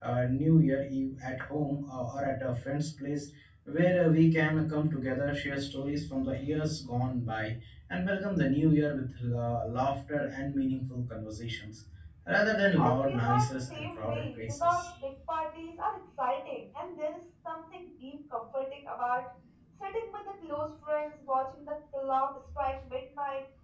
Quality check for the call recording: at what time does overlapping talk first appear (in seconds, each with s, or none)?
12.8 s